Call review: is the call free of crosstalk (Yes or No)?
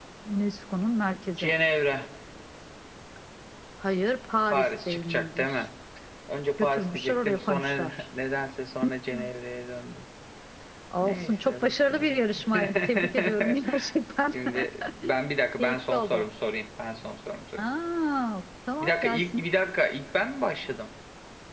No